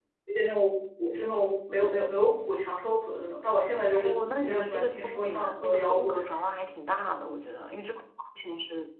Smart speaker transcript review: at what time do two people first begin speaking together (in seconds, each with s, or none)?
4.0 s